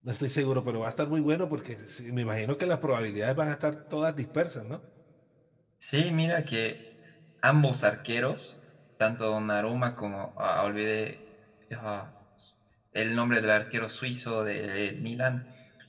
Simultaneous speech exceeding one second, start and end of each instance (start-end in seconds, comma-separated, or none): none